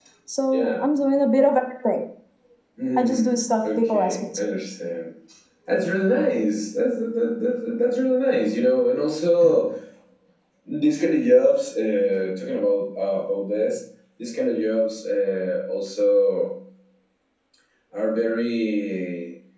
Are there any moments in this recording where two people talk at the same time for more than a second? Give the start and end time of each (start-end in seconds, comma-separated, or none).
3.0-4.4